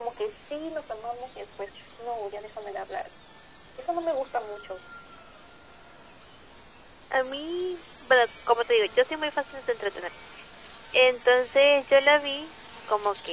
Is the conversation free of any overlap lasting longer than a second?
Yes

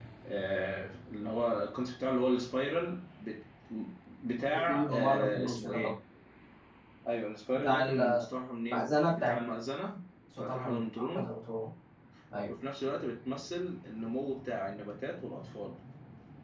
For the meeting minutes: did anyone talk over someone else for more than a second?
Yes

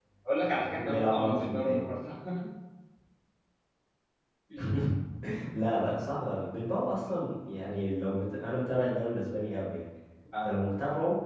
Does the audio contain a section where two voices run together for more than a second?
Yes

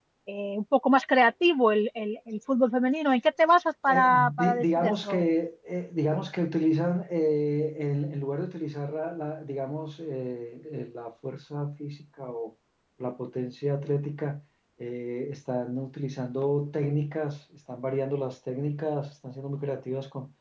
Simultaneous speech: Yes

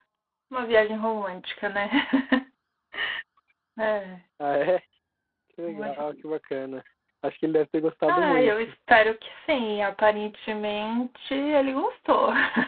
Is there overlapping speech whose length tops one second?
No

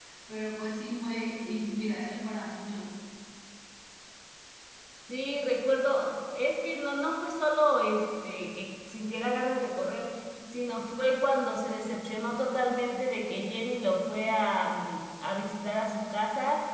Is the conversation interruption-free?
Yes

